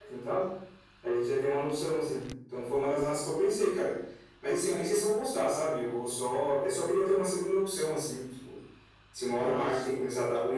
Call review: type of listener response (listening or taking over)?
listening